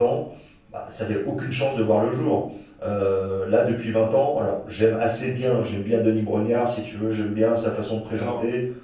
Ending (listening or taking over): listening